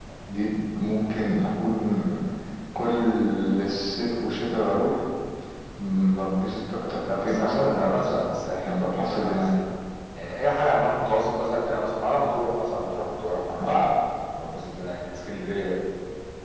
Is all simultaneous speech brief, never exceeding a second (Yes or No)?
No